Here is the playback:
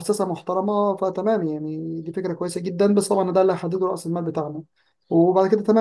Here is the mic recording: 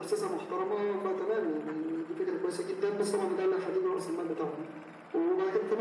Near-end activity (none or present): none